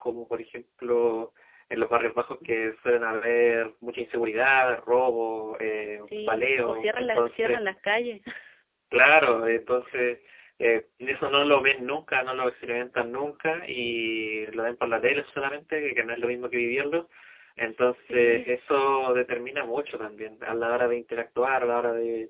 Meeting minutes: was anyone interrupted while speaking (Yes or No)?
Yes